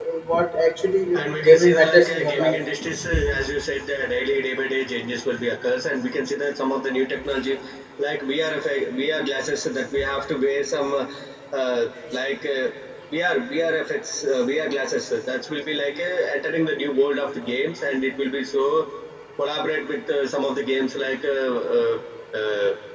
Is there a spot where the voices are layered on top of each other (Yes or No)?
Yes